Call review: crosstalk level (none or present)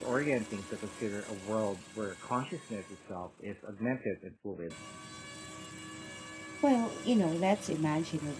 none